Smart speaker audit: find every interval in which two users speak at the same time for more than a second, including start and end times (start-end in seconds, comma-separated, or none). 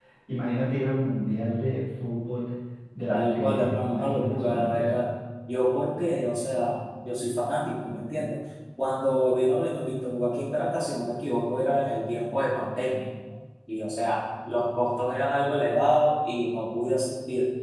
3.1-5.0